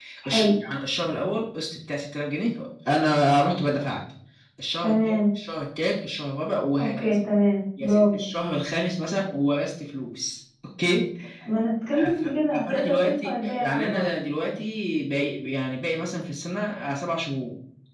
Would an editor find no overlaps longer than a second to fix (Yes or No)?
No